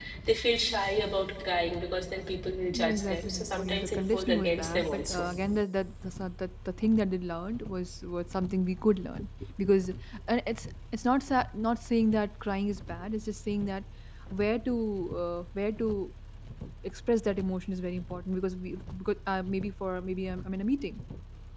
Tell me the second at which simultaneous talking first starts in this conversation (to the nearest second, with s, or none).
3 s